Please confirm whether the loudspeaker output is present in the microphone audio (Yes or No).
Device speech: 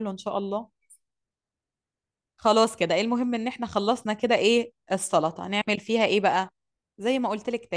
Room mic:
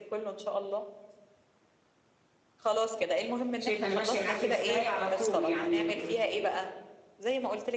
Yes